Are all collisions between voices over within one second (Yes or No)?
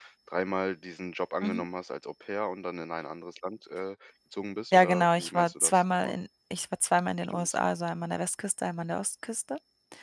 No